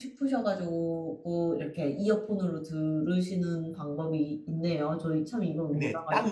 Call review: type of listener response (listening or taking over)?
taking over